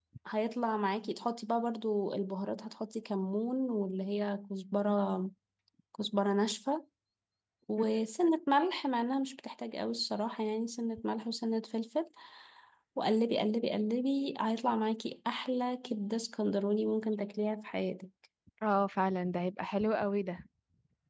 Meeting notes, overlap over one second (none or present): none